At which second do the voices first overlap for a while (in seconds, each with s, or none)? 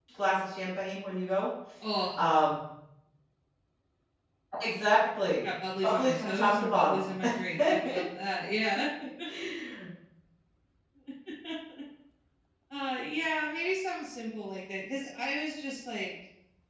5.8 s